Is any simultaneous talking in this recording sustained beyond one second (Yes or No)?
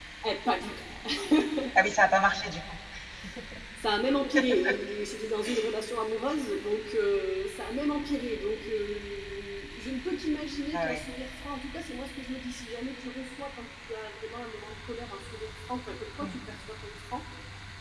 No